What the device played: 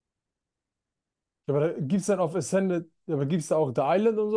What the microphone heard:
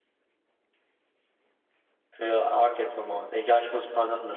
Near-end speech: present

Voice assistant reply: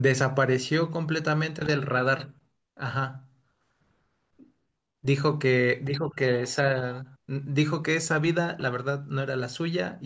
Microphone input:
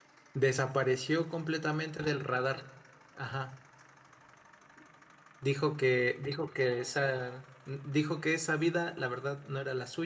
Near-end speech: none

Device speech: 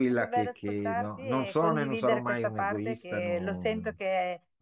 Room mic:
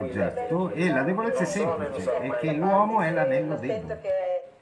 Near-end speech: present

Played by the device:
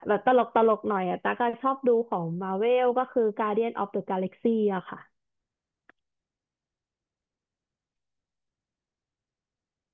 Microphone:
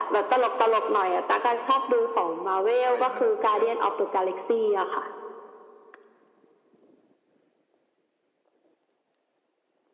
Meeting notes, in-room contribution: present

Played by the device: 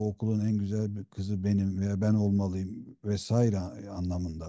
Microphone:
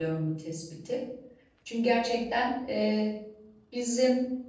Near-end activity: present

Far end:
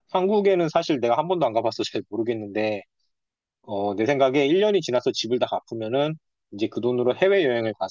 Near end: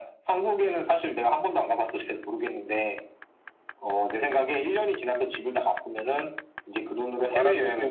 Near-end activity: present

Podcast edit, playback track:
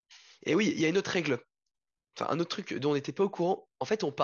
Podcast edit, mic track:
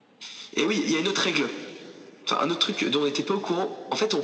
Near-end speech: none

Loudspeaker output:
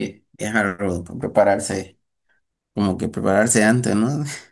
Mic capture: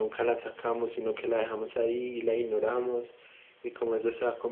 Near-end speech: present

